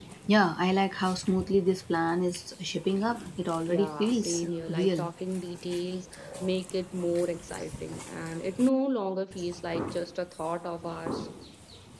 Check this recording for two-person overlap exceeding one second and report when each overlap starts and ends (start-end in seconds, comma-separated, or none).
3.7-5.1